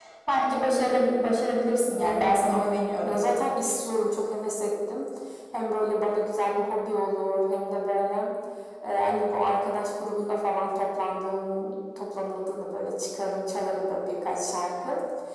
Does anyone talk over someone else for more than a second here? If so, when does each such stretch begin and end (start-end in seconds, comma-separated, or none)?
2.0-3.2